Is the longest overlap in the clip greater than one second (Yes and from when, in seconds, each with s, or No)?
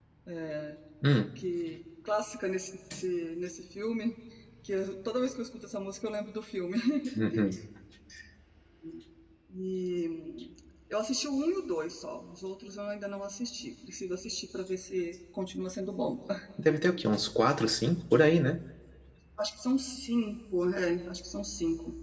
No